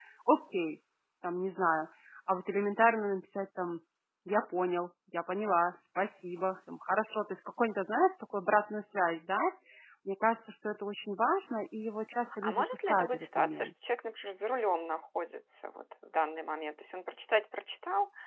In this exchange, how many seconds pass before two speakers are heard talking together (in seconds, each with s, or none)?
12.4 s